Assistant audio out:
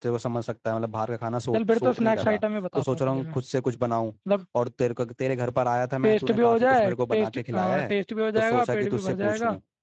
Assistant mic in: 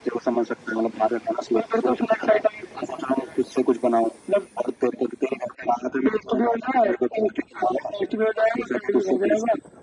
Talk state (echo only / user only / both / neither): echo only